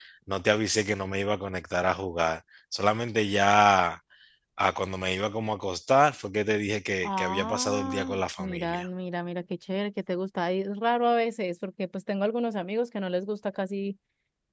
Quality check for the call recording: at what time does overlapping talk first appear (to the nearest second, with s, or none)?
7 s